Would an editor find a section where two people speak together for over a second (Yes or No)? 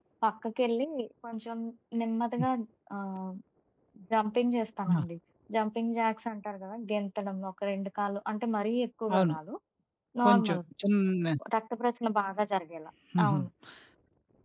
No